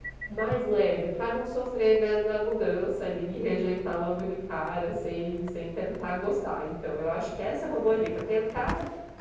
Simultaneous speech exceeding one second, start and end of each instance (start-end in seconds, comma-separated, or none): none